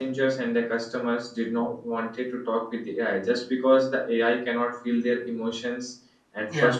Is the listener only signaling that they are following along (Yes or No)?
Yes